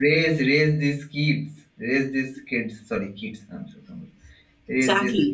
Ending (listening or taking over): taking over